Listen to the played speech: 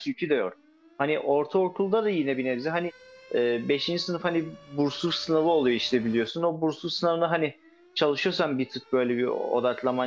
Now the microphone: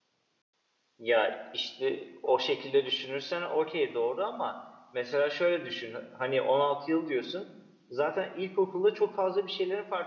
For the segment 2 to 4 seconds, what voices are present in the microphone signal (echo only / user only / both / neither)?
user only